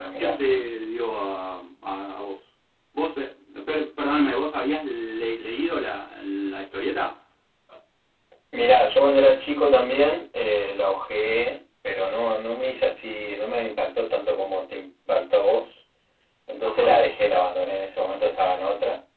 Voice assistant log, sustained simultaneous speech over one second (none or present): none